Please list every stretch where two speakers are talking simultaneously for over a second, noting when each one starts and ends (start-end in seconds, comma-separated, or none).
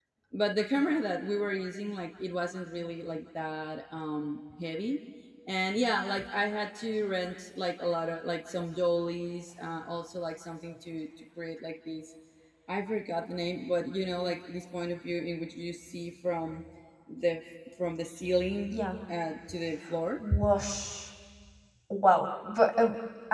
none